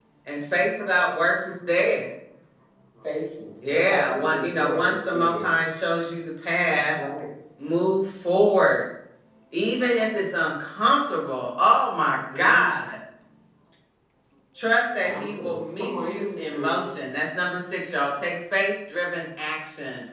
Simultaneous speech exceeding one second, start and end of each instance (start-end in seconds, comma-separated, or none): 3.7-5.6, 15.0-16.8